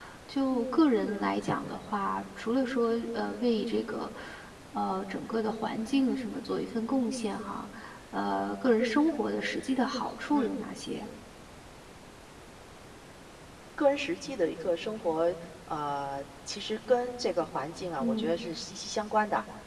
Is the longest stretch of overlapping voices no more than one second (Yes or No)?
Yes